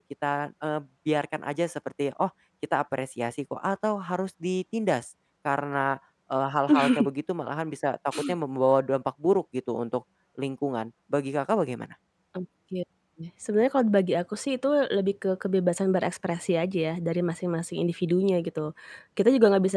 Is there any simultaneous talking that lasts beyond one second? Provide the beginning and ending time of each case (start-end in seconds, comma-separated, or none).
none